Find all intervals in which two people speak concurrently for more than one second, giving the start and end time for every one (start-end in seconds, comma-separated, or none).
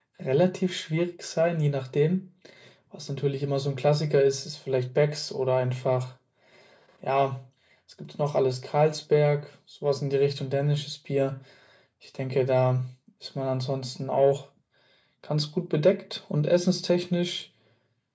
none